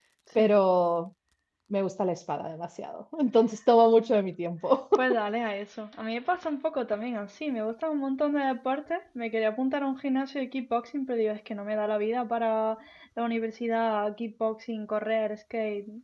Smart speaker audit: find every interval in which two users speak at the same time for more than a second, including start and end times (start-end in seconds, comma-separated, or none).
none